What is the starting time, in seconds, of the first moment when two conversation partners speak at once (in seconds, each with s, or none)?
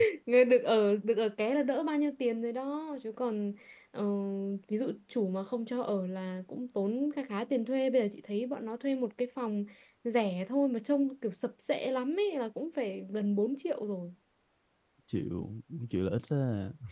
none